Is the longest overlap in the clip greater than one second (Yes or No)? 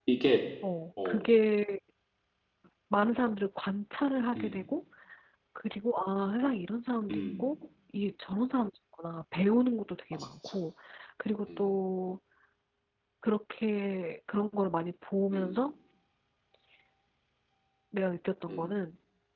No